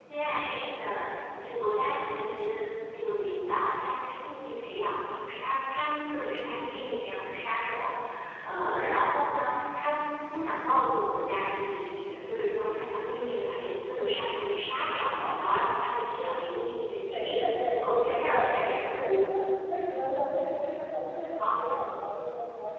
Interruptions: present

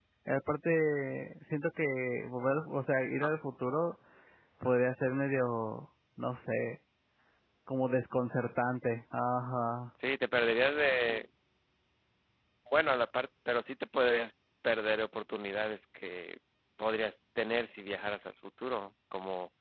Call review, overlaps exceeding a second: none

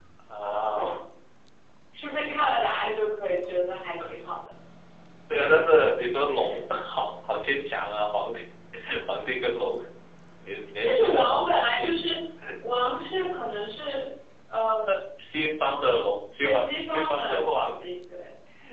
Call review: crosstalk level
present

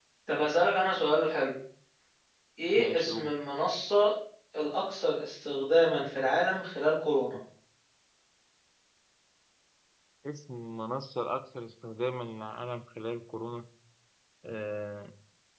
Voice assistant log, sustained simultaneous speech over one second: none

